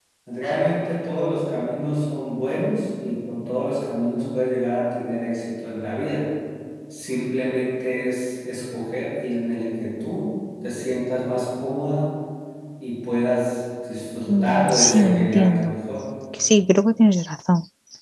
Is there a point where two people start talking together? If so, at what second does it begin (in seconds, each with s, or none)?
14.3 s